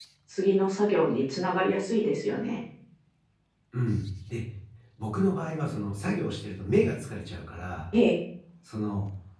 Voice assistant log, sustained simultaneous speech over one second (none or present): none